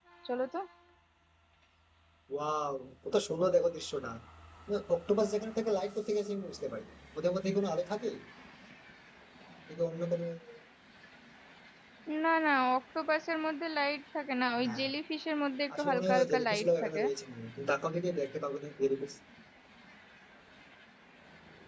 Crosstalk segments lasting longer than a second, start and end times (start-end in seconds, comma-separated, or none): 15.8-17.0